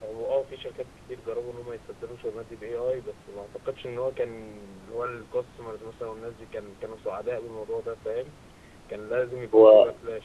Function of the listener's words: listening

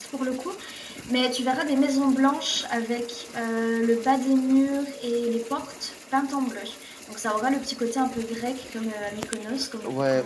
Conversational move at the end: taking over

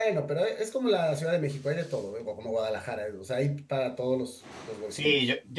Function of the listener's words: taking over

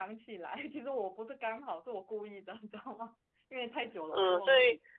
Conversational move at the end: taking over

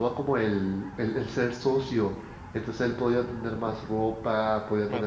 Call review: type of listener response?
listening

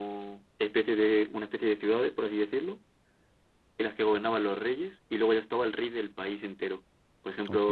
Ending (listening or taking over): listening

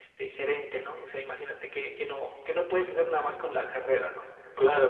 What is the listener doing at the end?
taking over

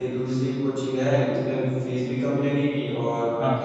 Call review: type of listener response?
listening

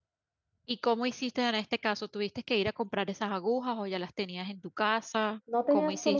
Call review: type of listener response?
taking over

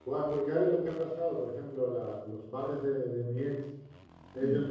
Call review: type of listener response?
listening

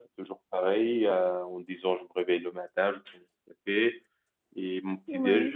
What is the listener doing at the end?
listening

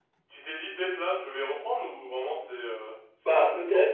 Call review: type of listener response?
taking over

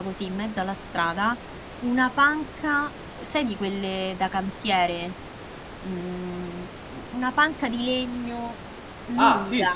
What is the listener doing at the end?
taking over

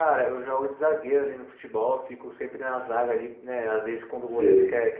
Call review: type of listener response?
listening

